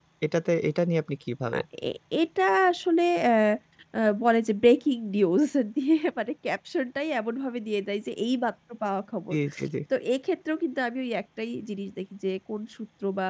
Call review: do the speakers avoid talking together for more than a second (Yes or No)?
Yes